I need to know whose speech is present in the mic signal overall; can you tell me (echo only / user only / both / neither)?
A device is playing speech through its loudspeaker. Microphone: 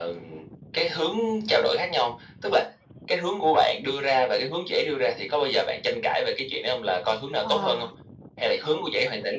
both